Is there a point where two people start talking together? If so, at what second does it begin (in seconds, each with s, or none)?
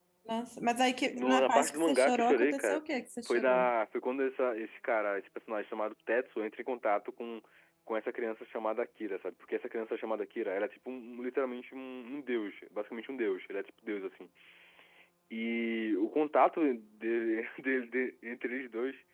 1.1 s